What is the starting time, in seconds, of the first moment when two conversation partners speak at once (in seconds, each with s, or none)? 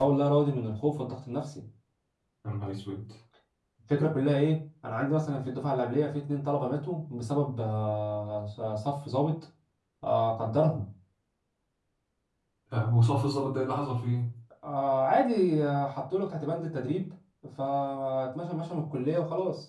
none